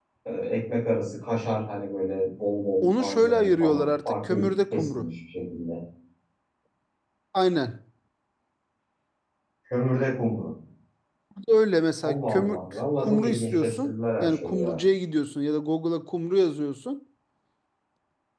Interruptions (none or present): present